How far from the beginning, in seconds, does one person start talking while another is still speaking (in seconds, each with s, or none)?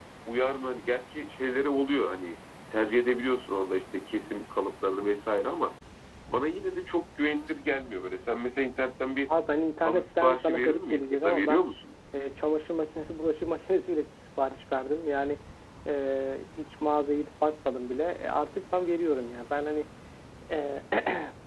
9.8 s